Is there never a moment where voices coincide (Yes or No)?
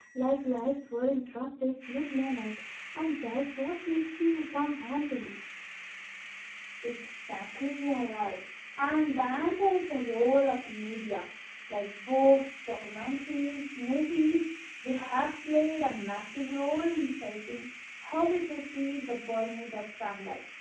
Yes